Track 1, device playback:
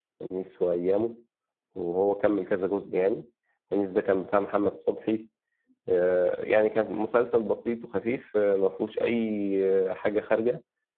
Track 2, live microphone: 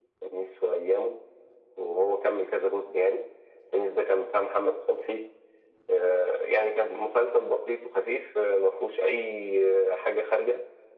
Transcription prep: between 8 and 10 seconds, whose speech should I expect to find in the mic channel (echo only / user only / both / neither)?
echo only